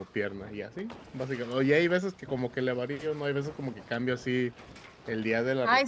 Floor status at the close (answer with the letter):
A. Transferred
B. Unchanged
A